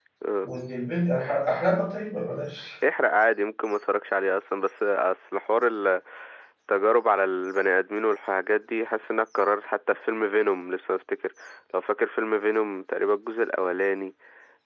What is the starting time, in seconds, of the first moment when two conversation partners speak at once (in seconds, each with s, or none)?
none